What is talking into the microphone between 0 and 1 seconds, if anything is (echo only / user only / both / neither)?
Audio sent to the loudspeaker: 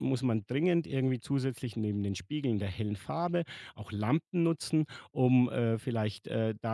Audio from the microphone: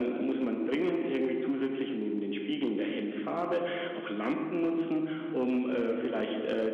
echo only